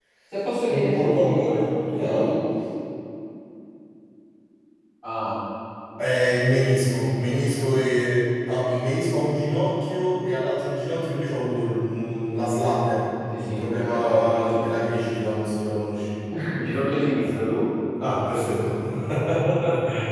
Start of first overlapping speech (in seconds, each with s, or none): 0.7 s